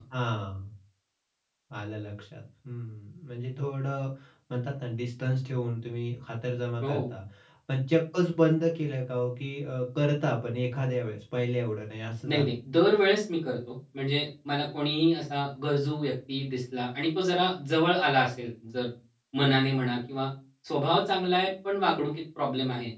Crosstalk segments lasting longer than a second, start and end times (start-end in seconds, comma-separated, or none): none